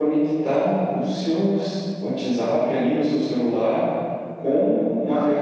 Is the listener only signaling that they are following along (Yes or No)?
Yes